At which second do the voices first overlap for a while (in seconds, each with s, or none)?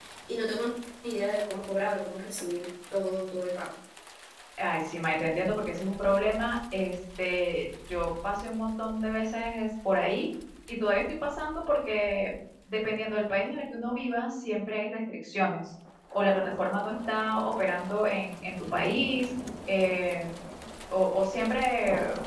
none